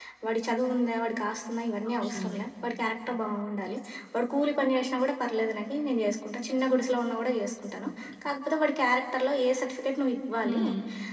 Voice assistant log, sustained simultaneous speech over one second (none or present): none